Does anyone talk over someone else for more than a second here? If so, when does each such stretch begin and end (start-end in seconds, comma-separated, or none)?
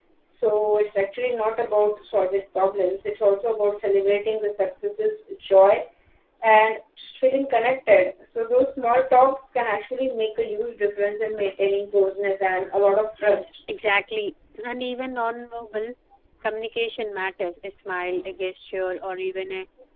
none